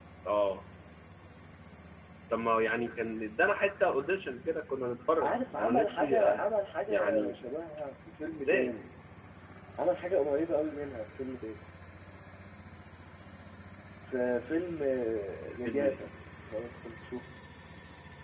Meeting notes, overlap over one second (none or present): present